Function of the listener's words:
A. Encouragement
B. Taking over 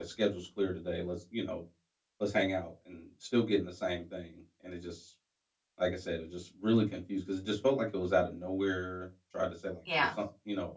A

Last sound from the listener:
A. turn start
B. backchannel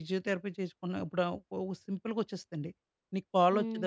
B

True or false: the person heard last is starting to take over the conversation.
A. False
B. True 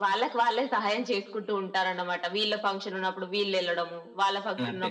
A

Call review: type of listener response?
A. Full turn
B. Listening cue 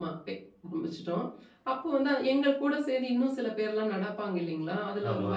B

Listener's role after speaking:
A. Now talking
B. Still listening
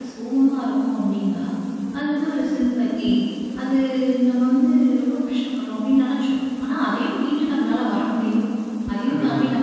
B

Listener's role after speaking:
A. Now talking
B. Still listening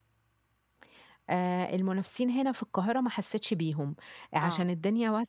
B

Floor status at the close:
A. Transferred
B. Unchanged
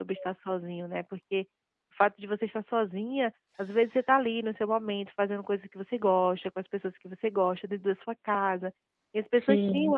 B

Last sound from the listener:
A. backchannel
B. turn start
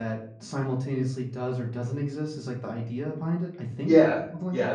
B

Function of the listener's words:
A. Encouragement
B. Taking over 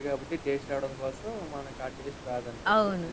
B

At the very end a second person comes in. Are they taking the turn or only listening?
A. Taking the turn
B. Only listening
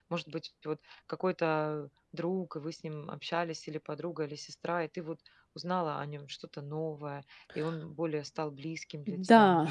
A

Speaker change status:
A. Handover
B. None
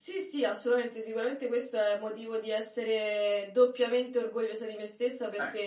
B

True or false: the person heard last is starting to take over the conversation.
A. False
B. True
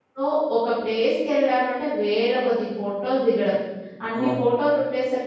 A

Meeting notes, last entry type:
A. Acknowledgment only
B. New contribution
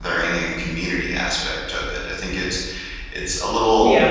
B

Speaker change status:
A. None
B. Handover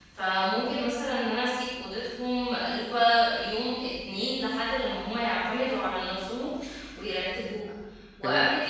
A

